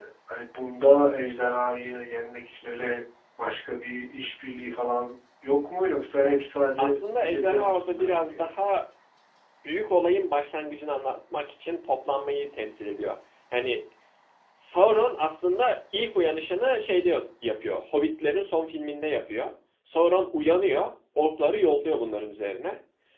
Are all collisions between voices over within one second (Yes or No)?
No